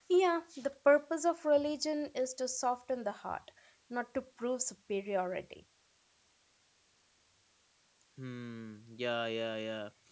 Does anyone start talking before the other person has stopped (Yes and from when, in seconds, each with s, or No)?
No